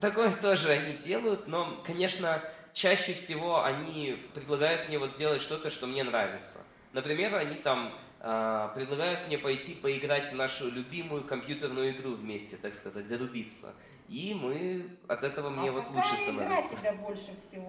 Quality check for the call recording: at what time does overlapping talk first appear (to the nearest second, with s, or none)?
16 s